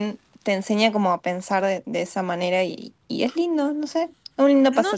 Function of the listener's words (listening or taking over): taking over